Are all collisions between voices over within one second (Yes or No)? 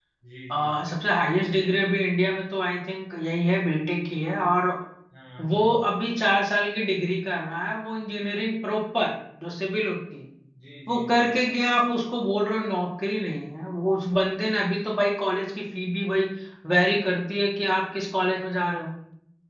Yes